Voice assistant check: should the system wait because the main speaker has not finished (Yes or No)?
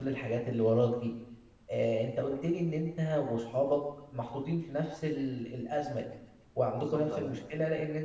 Yes